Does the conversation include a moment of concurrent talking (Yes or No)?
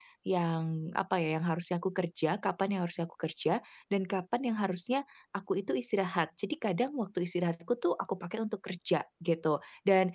No